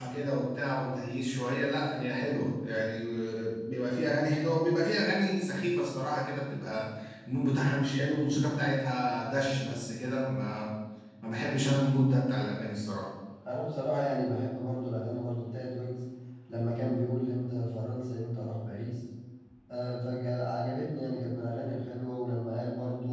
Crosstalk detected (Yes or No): No